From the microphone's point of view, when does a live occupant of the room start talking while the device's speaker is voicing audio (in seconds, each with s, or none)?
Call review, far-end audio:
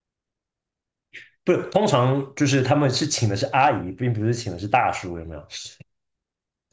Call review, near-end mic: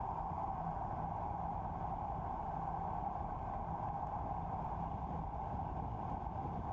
none